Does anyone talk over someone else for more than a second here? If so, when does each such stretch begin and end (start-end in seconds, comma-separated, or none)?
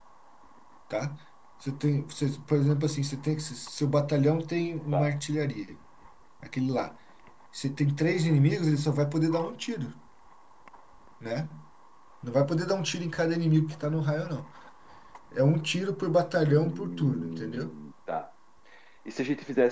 16.4-17.7